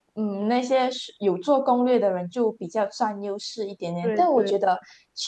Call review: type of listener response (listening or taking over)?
listening